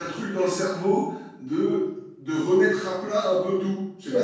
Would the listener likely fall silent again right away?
No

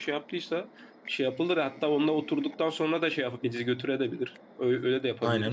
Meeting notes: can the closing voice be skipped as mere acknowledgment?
No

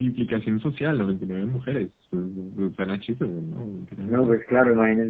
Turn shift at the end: Yes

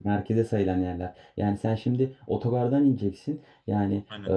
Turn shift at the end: No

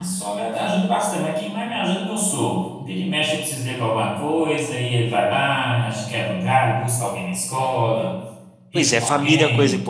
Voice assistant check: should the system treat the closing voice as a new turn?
Yes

